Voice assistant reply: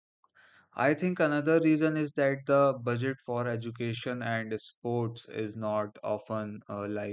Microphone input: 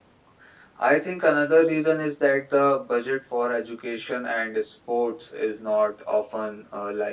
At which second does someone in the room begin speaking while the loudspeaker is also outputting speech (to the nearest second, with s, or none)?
none